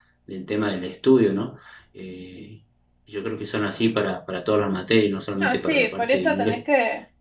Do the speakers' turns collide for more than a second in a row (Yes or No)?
Yes